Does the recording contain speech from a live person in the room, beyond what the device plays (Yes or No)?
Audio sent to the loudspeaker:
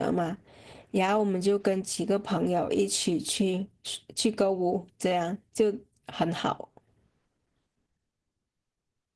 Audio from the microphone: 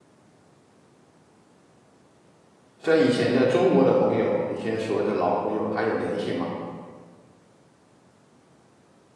Yes